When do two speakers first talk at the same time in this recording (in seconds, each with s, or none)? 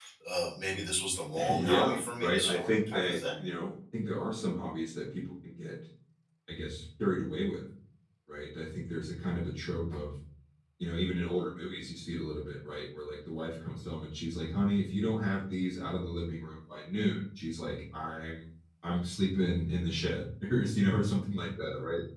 1.4 s